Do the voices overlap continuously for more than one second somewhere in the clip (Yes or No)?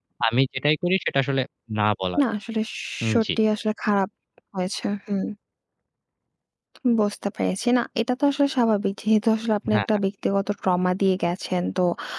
No